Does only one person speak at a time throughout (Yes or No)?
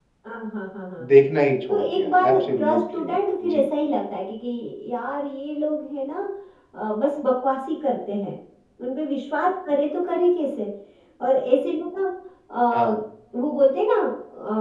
No